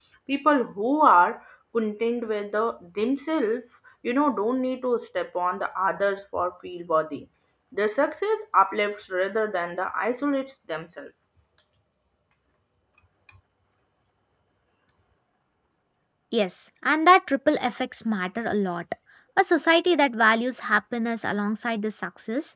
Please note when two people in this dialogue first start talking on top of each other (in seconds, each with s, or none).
none